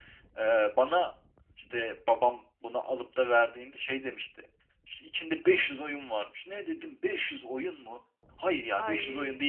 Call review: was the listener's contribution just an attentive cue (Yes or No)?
Yes